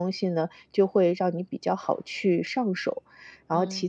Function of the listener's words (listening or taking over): listening